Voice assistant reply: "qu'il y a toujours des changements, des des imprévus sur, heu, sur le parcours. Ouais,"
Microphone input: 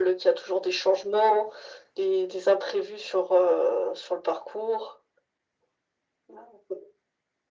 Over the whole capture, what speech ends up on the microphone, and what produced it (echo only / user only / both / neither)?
echo only